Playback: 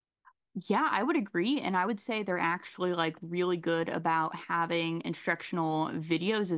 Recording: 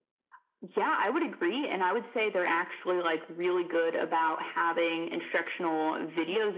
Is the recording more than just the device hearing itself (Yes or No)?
No